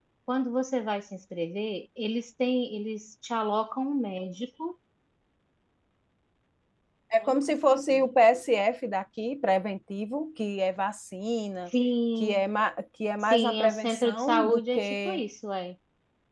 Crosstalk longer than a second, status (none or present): present